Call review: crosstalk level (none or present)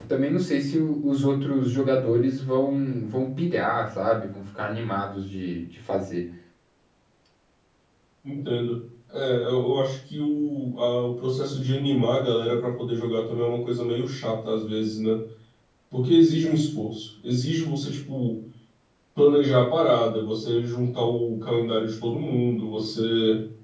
none